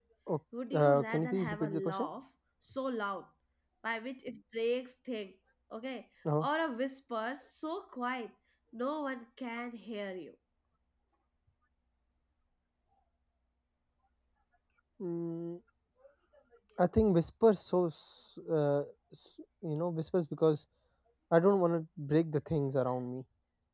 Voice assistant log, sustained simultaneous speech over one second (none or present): present